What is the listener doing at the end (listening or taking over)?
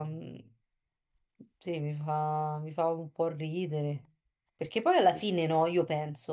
listening